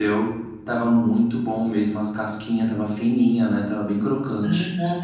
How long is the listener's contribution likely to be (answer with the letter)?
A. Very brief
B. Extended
B